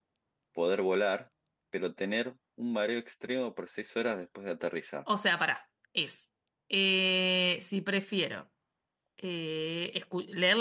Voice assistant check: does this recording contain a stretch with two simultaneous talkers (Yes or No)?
No